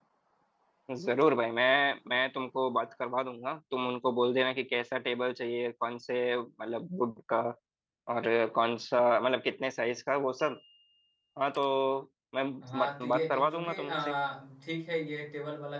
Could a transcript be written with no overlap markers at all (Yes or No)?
No